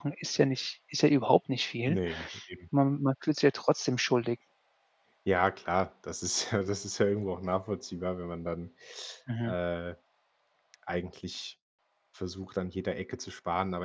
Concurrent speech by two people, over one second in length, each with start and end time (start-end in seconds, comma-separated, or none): none